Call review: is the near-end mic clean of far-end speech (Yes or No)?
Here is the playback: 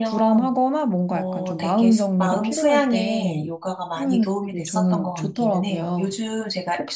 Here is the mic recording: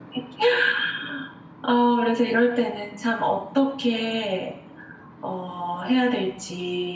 Yes